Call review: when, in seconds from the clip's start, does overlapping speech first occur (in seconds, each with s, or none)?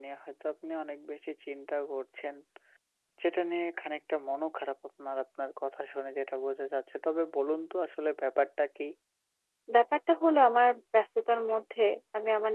none